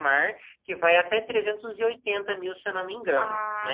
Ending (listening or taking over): taking over